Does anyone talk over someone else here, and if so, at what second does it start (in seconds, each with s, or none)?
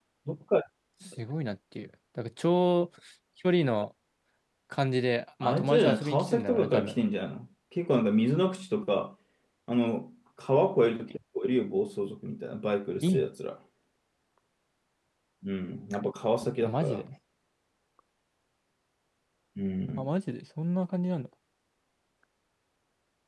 5.4 s